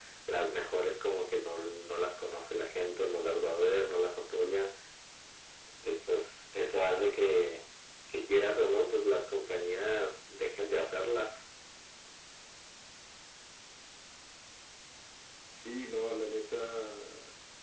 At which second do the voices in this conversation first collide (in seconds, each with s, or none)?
none